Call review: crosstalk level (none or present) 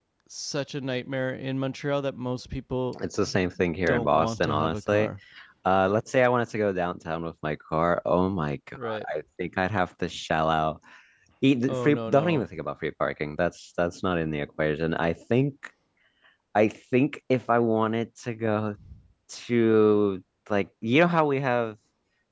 present